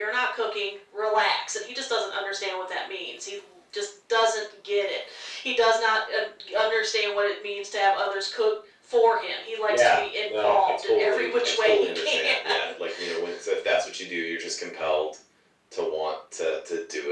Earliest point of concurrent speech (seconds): 9.7 s

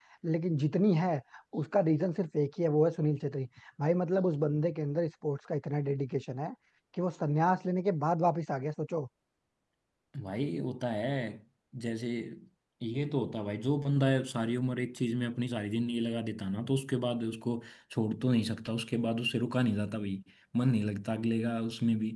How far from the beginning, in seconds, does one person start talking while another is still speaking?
none

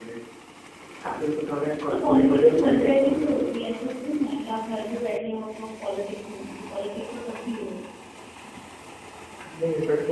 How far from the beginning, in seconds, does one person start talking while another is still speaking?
1.9 s

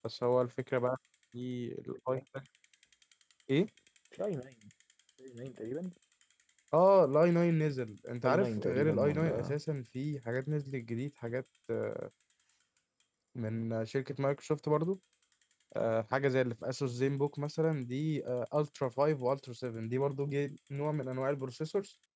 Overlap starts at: 8.2 s

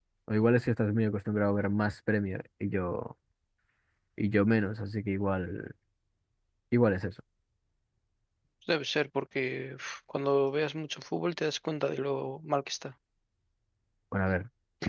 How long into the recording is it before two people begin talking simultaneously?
none

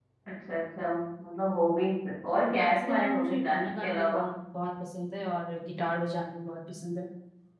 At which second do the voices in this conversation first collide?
2.5 s

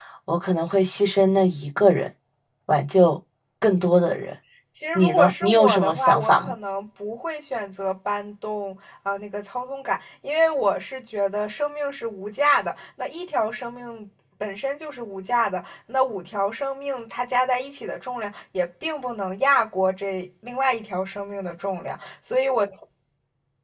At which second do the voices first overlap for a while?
5.0 s

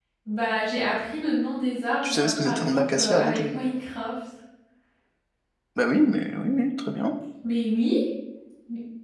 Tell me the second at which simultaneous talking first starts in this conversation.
2.0 s

